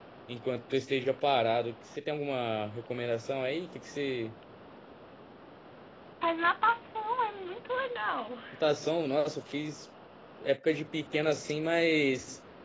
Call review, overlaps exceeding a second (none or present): none